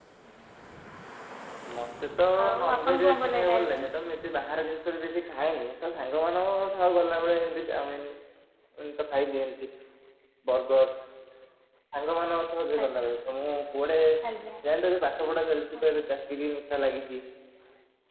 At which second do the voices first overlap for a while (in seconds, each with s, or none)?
2.6 s